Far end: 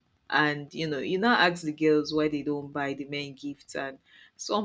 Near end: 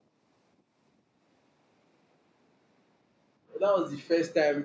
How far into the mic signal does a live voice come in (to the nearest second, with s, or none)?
4 s